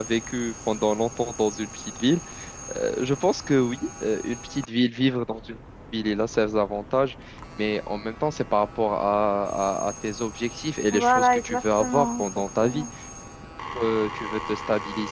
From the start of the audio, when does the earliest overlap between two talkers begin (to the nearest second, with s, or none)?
11 s